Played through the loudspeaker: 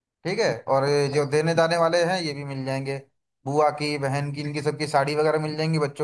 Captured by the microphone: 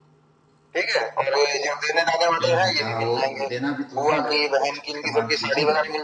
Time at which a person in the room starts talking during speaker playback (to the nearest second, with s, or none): 2 s